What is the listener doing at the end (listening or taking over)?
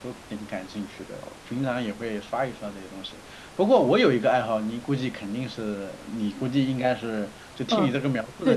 taking over